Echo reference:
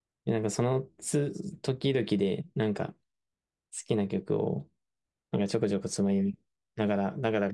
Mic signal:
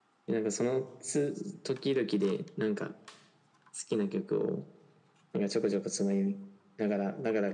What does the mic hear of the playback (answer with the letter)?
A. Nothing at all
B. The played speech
B